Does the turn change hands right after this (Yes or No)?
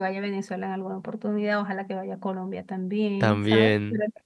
No